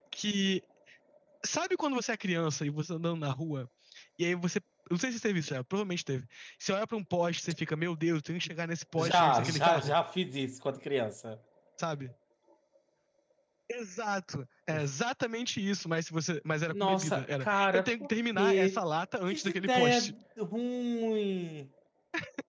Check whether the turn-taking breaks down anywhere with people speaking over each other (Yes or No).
Yes